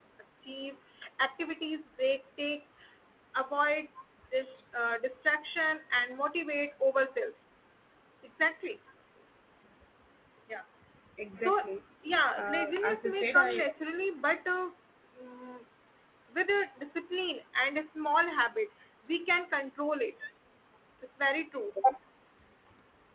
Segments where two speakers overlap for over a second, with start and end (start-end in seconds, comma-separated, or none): 12.4-13.6